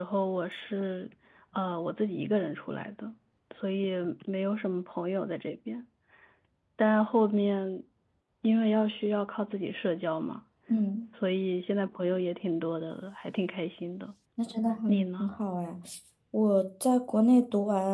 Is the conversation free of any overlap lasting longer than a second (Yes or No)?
Yes